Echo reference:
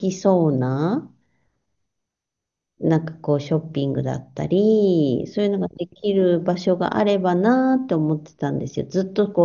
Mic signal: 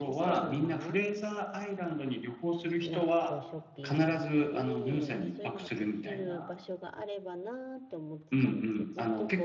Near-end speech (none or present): present